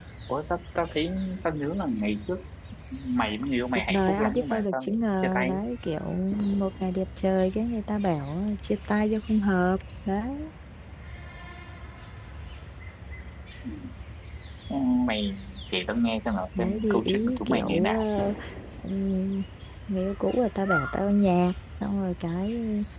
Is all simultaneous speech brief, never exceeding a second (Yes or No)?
No